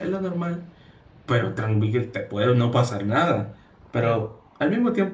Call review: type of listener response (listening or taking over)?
listening